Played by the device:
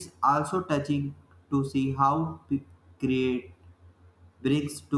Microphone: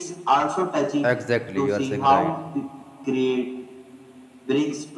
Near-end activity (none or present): present